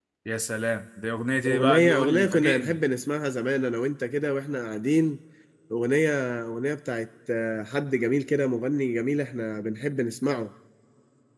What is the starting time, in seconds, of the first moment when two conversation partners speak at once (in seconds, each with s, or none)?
1.4 s